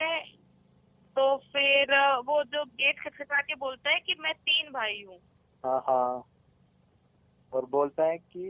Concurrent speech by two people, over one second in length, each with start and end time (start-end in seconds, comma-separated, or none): none